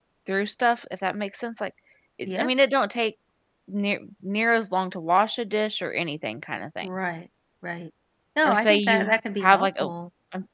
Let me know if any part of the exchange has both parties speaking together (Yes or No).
Yes